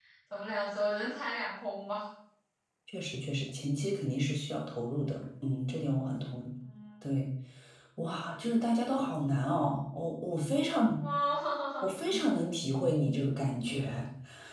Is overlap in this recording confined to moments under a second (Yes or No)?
Yes